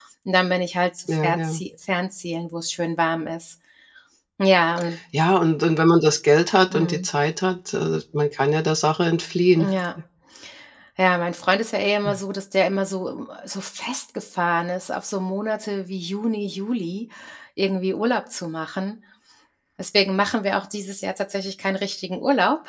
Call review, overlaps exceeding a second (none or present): none